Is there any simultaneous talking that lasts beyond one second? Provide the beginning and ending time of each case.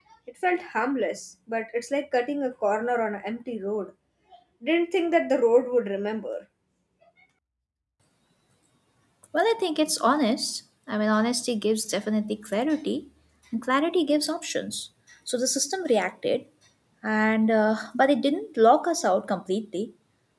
none

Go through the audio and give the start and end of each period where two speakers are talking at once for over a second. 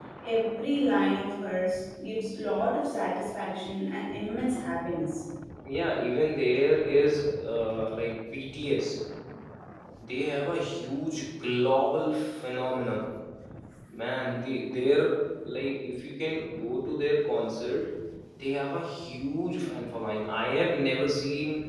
none

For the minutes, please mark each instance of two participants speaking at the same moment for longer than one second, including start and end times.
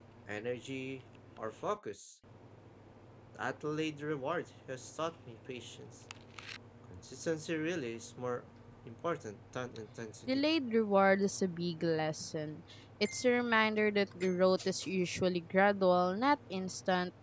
none

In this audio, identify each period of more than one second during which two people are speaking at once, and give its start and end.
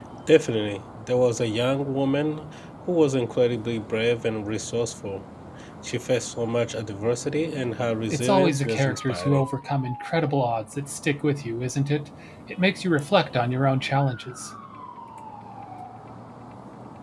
8.1-9.4

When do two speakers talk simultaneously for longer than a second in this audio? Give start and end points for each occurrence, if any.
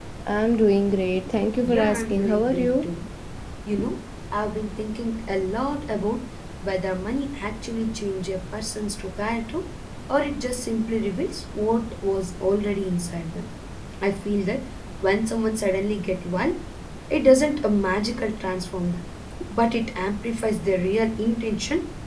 1.6-2.9

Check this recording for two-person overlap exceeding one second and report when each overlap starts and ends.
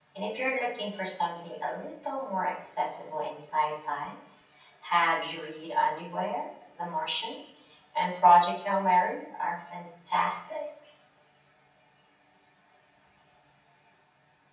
none

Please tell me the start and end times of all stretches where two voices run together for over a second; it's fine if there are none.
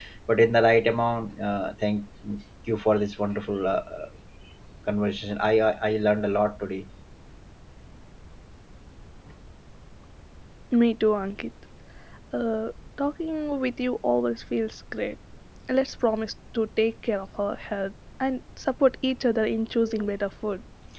none

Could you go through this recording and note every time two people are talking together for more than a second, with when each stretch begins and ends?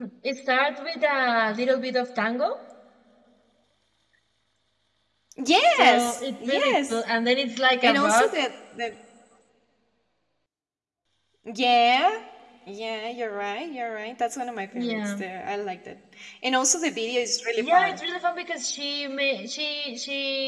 5.8-7.0

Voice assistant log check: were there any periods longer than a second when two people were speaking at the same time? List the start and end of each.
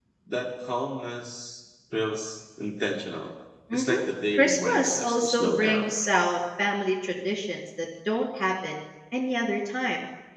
4.4-5.9

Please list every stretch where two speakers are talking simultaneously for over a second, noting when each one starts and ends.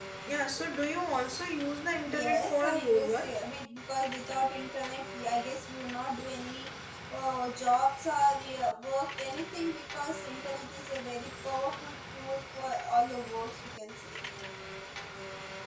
2.1-3.3

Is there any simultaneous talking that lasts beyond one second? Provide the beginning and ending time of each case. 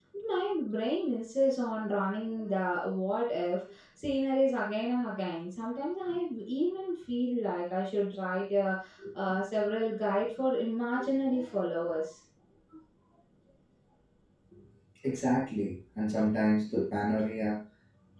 none

